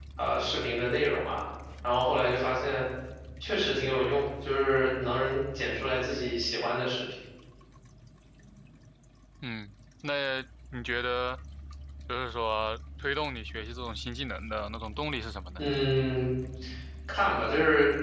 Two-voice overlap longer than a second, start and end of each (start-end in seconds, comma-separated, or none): none